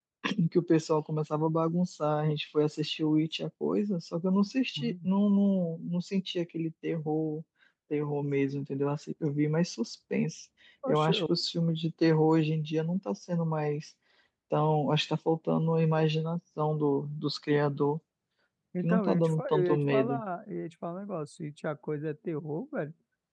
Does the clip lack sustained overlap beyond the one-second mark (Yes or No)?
No